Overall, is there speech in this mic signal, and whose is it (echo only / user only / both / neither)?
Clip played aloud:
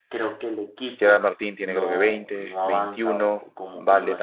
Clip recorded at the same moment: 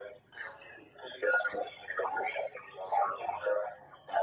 echo only